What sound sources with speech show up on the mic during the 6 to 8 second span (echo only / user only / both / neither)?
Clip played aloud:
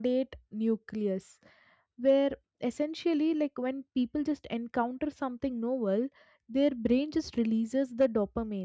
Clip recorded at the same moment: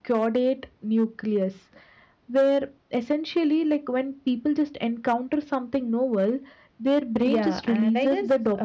both